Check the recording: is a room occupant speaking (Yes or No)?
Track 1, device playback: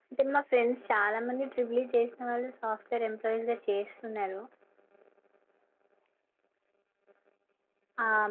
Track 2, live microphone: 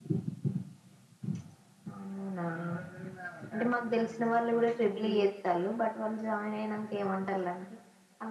Yes